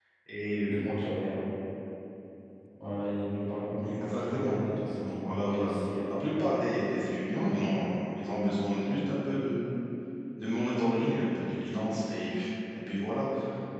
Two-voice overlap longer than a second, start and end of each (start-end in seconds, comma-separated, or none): 3.8-5.7